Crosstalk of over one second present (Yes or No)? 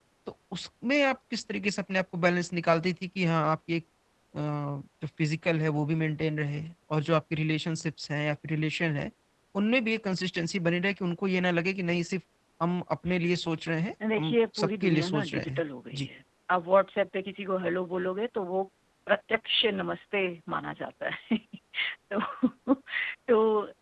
Yes